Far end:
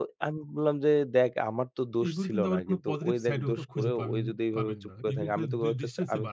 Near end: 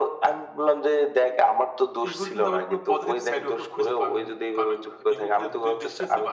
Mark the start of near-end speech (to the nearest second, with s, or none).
none